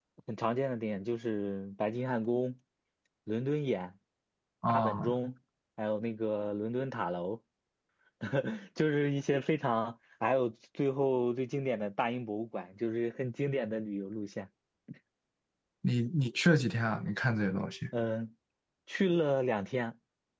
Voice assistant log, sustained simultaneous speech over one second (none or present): none